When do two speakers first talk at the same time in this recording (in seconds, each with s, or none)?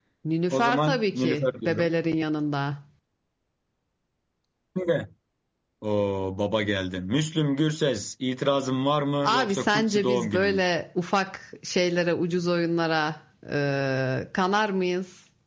0.5 s